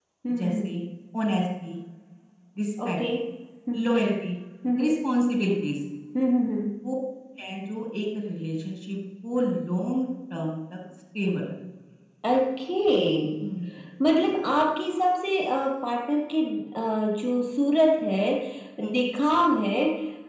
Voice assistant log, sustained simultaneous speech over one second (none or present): none